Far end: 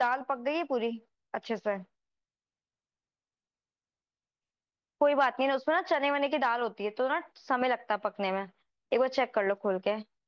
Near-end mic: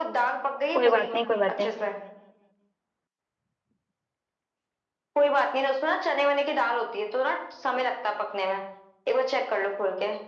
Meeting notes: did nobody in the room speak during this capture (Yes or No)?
No